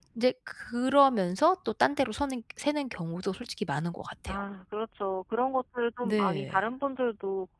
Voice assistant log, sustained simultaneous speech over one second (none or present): none